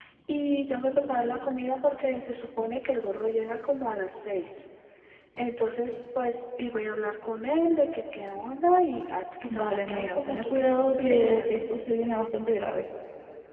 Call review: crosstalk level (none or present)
present